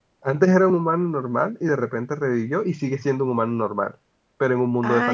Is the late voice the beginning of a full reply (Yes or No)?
Yes